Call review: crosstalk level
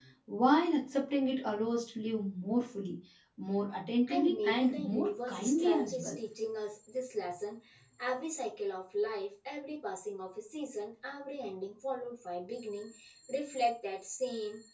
present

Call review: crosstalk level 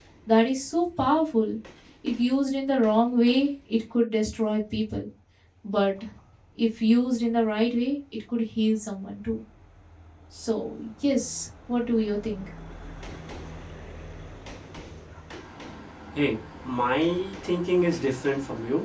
none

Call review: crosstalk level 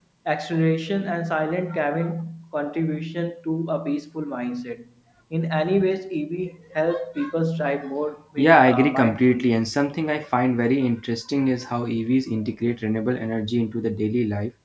present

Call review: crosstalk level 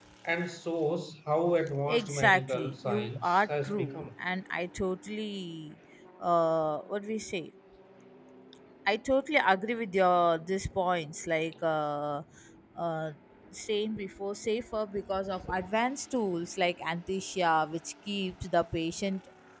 present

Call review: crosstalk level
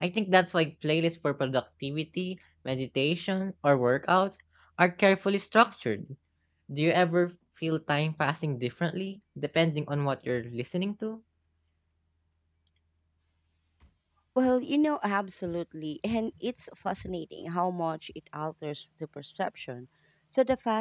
none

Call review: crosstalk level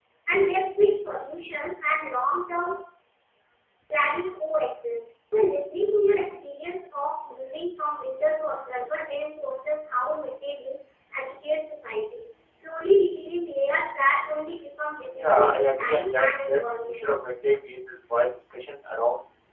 present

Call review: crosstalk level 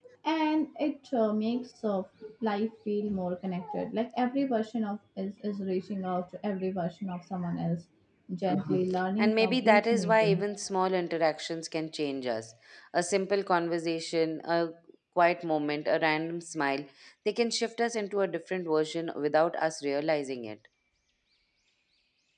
present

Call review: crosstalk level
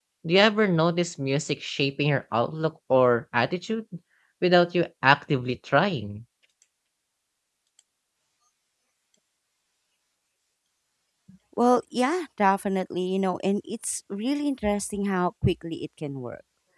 none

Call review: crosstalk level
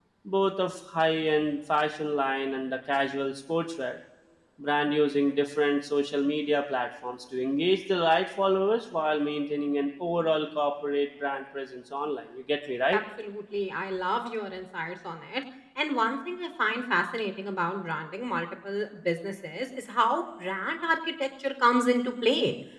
none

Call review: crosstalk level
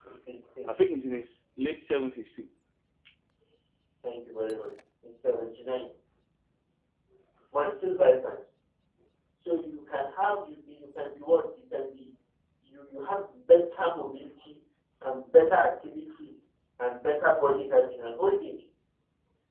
none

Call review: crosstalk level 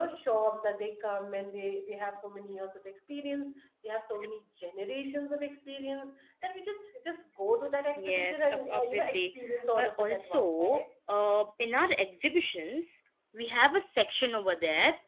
present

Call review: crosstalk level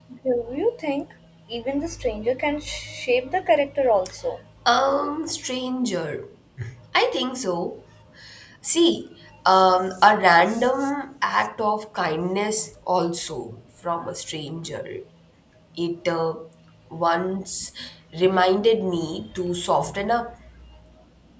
none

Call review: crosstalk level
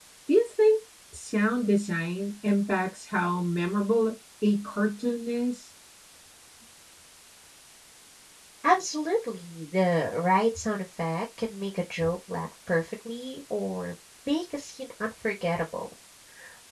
none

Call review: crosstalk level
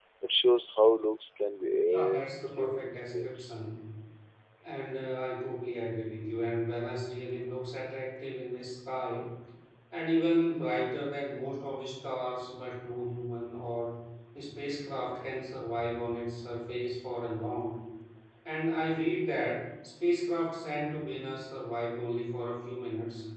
present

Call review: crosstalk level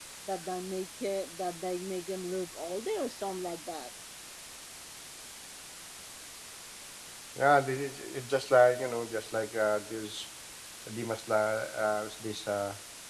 none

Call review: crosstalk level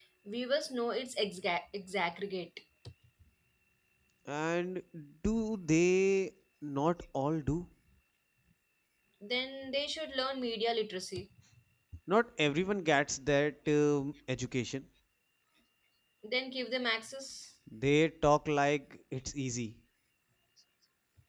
none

